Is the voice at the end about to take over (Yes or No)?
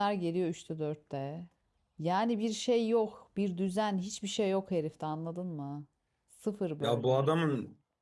Yes